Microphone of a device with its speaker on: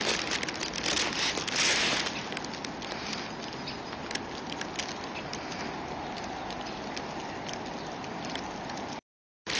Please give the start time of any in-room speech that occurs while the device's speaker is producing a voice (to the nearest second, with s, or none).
none